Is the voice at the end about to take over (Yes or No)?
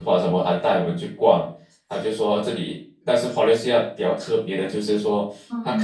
No